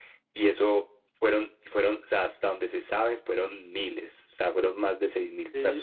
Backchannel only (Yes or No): No